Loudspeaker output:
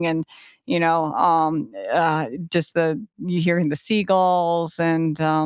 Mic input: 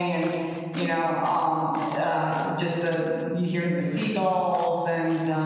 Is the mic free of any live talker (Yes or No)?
Yes